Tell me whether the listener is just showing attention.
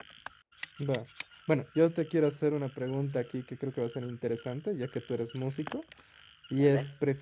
Yes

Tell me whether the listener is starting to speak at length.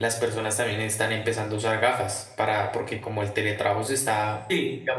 No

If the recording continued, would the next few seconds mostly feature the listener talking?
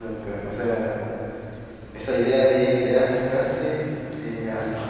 No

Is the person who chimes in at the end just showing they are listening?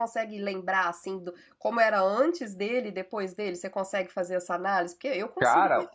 No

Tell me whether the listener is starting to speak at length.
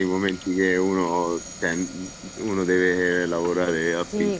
Yes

